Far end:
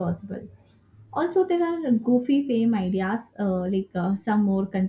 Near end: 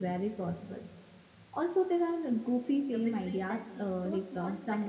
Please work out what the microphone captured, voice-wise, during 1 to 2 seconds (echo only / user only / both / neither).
echo only